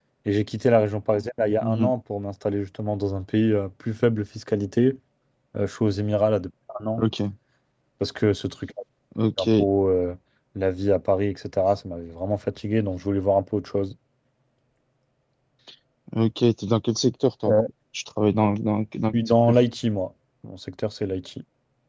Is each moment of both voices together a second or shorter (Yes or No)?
Yes